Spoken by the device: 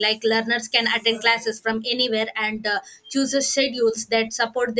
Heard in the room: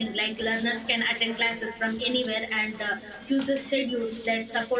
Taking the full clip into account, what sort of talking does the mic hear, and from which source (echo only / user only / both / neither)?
echo only